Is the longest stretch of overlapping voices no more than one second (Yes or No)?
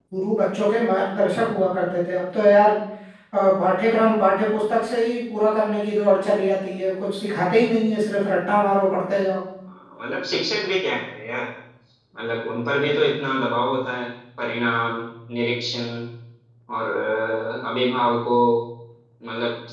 Yes